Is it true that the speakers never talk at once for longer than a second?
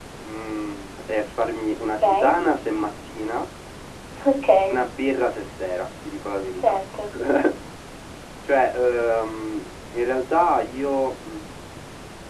Yes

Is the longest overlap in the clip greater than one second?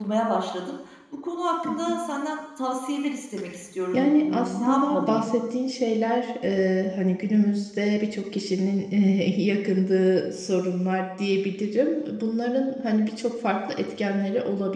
Yes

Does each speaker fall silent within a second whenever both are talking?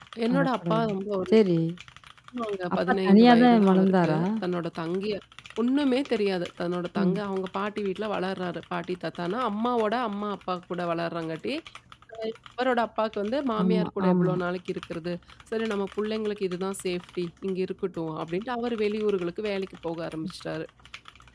No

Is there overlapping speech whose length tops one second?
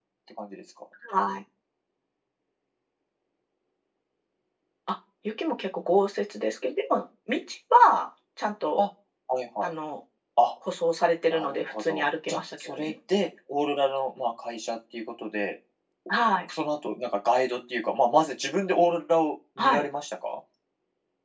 Yes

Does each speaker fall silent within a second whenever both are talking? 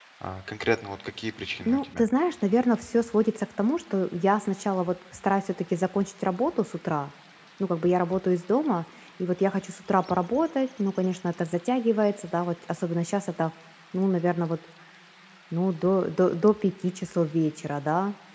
Yes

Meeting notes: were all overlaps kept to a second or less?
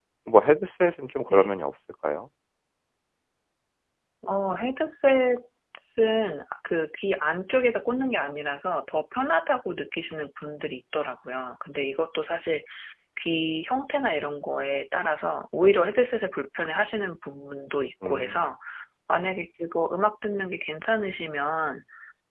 Yes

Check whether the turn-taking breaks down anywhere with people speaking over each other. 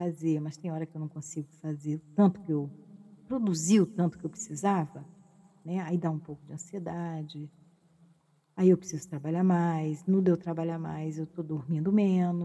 No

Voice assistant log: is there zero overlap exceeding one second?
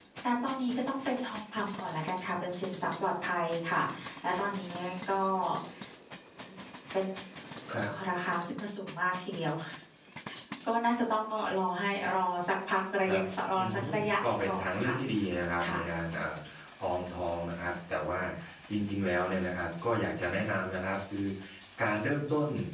No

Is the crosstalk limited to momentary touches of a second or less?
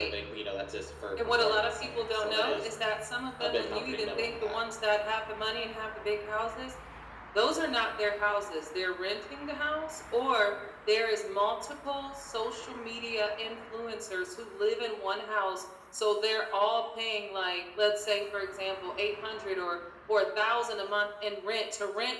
No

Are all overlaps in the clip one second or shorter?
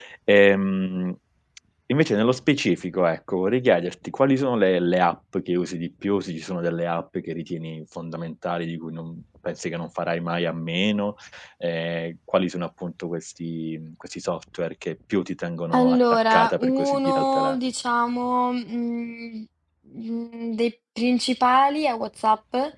No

